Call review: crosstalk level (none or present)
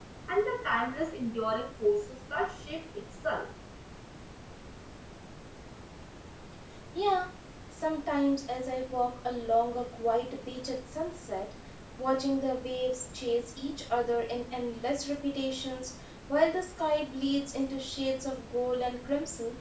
none